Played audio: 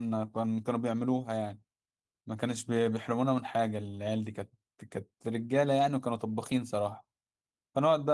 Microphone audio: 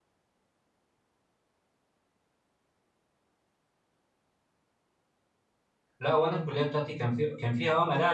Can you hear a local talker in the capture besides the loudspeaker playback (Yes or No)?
Yes